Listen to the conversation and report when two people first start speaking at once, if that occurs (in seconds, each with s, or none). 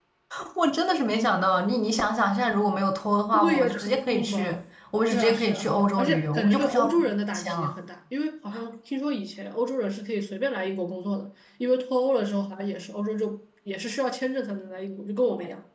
3.3 s